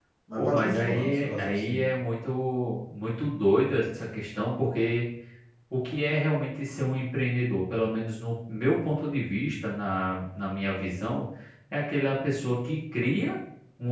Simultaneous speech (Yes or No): Yes